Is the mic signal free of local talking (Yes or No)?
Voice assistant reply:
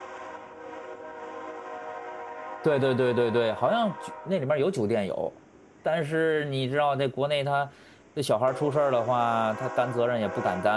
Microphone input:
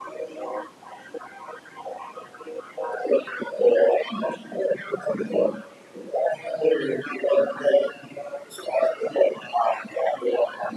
Yes